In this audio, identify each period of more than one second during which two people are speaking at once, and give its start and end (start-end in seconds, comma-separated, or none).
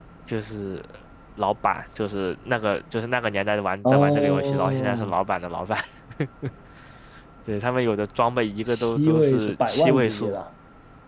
3.9-5.1, 8.7-10.4